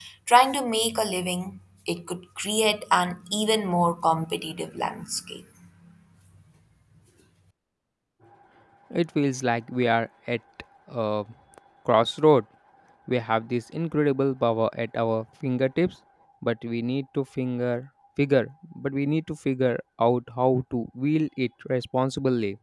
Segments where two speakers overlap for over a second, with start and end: none

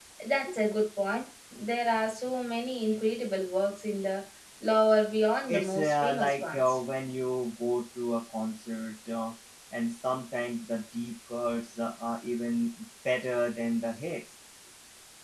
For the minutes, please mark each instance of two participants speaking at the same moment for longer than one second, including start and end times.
5.5-6.8

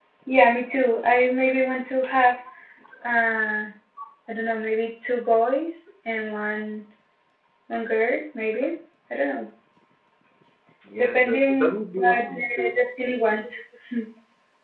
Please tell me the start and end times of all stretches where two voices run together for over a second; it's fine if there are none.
11.0-12.7

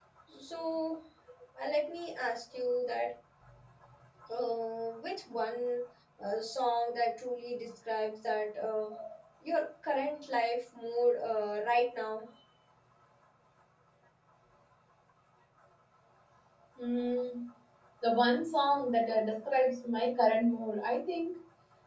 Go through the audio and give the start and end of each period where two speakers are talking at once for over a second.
none

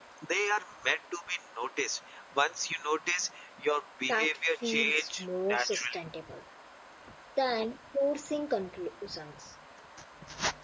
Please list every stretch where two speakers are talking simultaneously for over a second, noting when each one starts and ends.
4.1-6.0

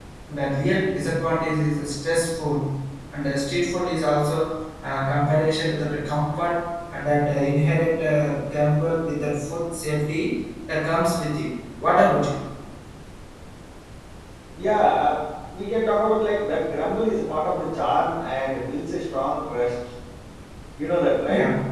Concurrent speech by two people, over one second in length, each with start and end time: none

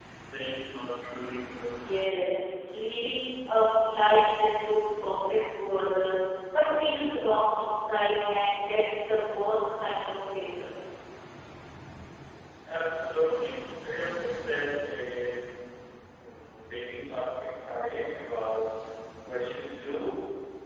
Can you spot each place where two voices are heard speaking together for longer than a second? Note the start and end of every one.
none

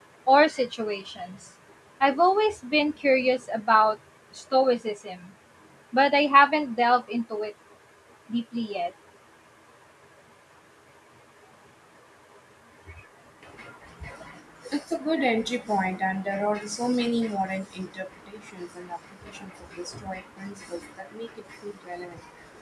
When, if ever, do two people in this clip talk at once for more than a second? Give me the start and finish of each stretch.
none

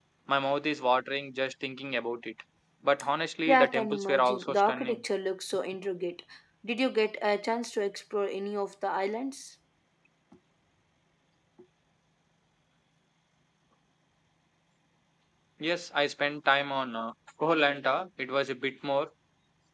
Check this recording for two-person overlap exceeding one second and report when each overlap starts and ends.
3.5-5.0

